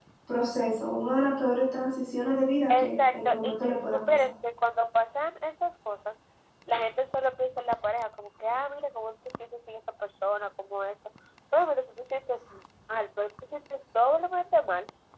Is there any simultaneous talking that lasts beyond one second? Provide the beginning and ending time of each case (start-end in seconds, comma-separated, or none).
2.7-4.3